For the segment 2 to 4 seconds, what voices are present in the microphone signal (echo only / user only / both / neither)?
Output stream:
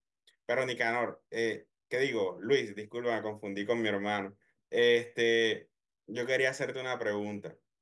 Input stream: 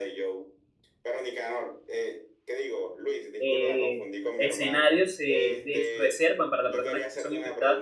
both